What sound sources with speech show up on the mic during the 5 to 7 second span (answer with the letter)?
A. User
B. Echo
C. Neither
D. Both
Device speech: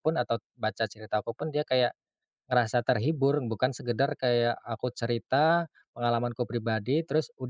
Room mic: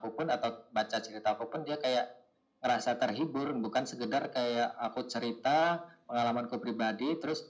B